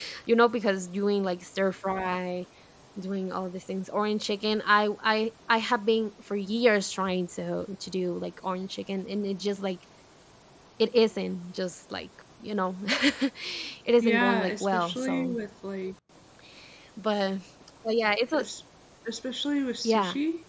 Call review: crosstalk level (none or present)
present